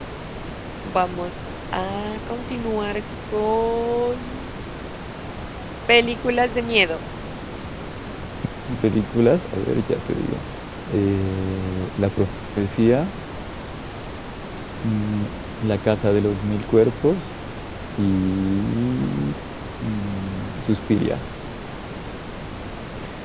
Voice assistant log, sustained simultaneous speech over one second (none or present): none